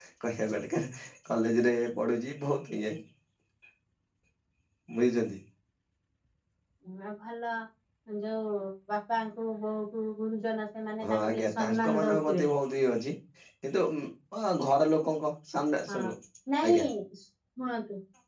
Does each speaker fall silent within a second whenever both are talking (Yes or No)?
No